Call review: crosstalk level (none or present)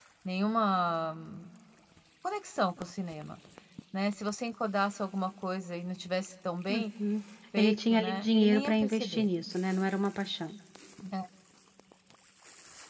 present